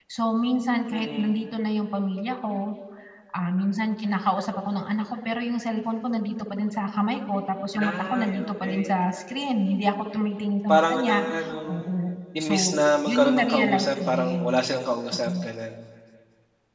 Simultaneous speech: Yes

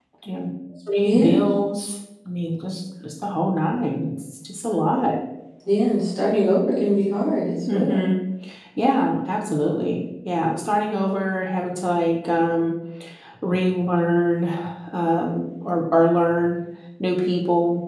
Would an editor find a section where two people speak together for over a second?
No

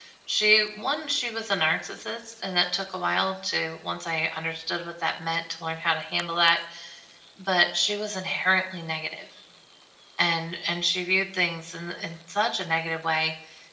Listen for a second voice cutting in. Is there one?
No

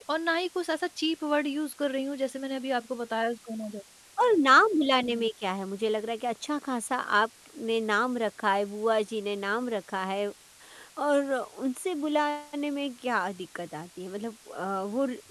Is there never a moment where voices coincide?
Yes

